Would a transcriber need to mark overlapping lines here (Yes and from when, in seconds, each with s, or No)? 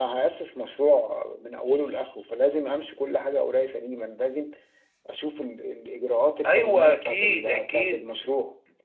Yes, from 6.4 s